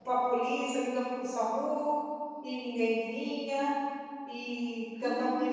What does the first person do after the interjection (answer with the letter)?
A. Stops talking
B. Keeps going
B